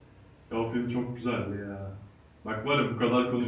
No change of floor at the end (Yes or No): Yes